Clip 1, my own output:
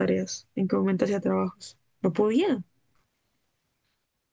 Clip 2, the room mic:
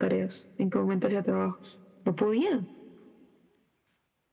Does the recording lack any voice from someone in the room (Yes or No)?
Yes